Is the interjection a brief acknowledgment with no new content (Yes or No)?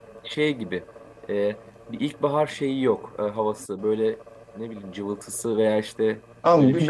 No